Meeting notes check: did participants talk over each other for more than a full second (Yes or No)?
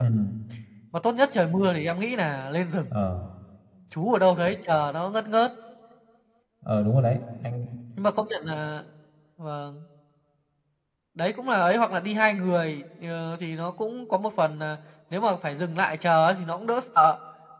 No